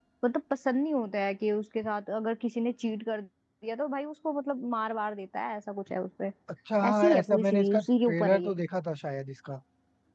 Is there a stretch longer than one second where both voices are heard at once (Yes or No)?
Yes